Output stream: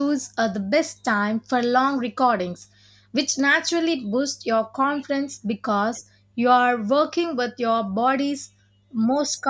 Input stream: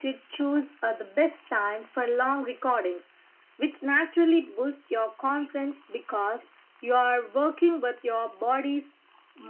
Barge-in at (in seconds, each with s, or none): none